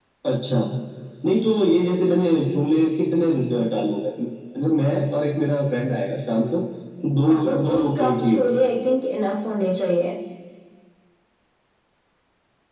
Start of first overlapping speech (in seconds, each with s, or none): 7.3 s